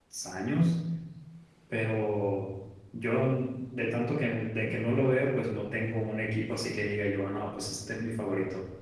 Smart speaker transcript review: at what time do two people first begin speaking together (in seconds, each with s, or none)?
none